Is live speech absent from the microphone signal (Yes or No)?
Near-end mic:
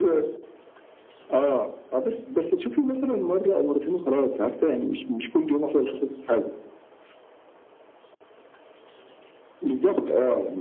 Yes